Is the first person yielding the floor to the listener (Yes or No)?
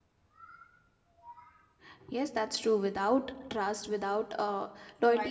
No